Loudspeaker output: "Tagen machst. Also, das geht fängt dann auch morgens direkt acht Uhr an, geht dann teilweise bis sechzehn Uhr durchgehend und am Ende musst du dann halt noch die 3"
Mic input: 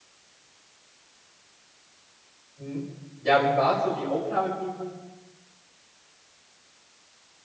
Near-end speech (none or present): present